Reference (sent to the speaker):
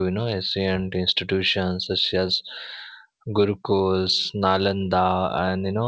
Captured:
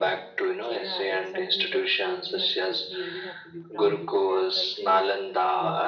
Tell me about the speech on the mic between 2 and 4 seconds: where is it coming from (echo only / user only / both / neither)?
both